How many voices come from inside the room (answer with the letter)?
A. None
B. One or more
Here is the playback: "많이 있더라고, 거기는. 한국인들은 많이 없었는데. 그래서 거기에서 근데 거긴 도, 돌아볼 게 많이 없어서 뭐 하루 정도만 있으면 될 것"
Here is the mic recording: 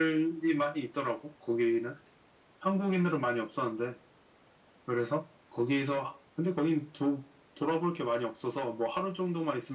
A